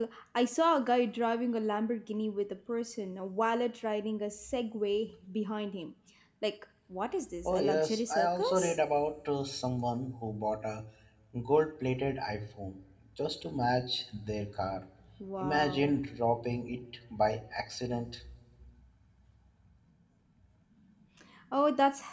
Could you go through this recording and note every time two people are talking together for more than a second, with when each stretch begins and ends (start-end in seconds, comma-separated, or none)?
7.5-8.8